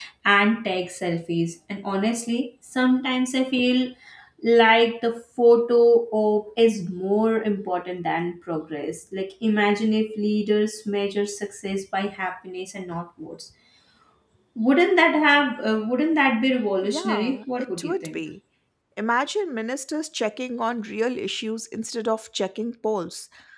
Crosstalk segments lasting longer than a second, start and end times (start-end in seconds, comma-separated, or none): 16.8-18.2